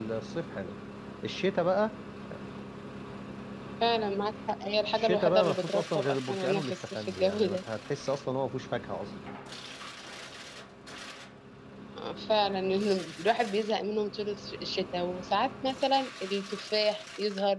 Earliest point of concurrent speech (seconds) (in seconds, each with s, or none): 4.9 s